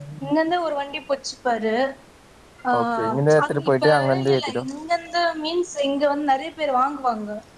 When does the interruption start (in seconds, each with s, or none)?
2.8 s